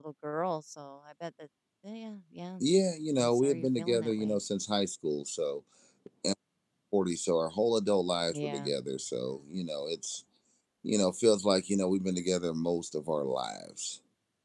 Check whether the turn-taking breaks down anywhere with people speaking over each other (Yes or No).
Yes